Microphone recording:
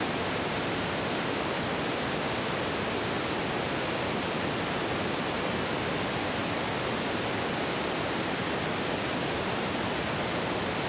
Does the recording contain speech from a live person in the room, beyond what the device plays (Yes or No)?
No